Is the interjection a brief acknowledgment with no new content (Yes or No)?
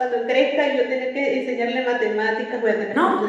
No